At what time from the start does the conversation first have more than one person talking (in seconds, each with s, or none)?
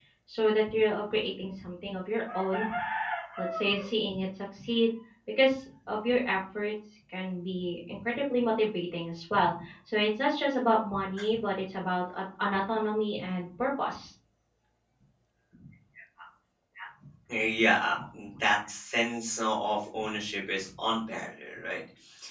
none